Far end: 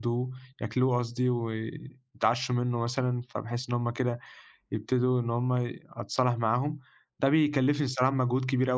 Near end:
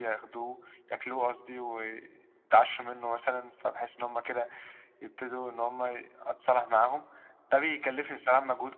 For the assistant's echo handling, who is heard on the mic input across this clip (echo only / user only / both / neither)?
echo only